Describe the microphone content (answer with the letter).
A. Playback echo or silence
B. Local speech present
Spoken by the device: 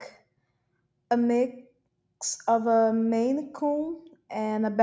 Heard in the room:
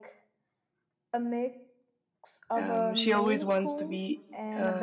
B